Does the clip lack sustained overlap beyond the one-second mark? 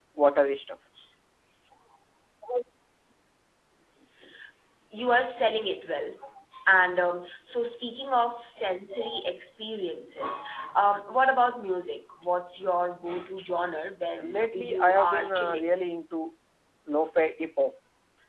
No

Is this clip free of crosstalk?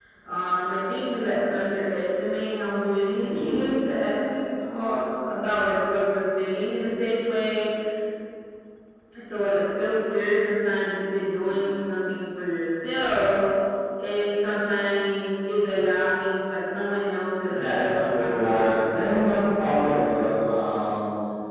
No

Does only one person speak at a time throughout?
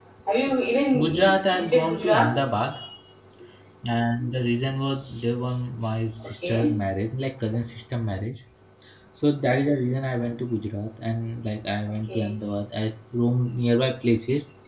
No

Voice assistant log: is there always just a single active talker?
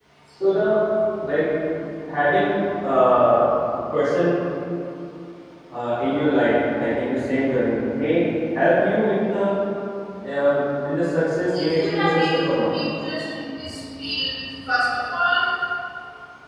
No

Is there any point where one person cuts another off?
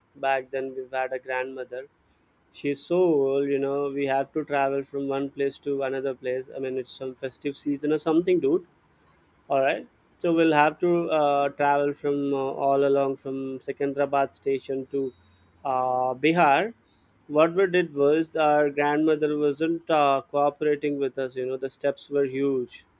No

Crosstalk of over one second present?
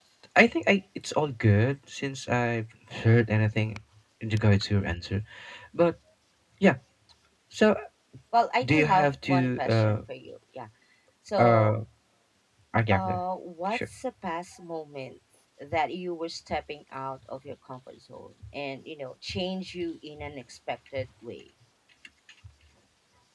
Yes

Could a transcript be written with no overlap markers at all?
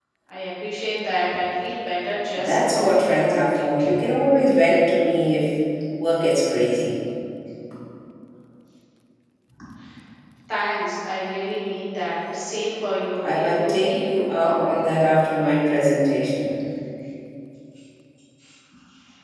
No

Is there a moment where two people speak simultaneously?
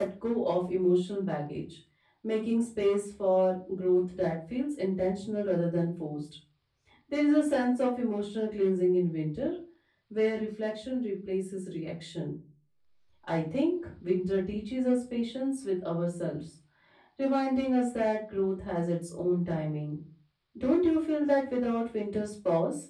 No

